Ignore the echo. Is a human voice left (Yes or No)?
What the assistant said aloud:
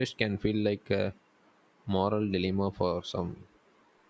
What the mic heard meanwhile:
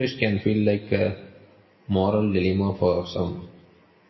No